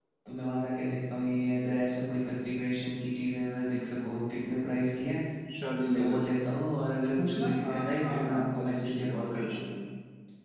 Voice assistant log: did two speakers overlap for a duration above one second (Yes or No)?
Yes